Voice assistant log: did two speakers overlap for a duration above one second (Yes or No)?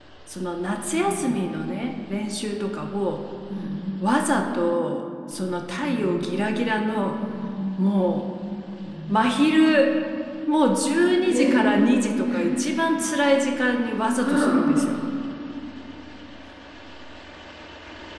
No